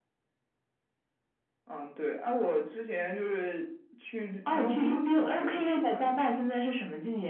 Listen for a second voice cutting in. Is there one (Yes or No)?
Yes